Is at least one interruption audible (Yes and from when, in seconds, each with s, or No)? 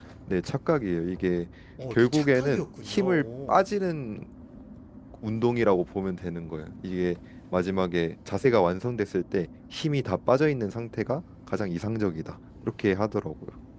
Yes, from 1.9 s